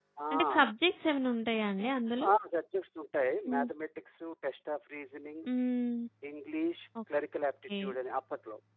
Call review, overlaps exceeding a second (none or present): none